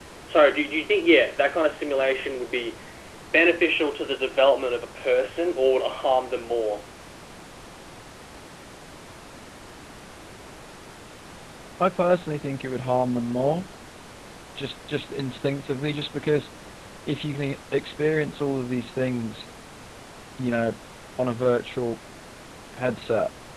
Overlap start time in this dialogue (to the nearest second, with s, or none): none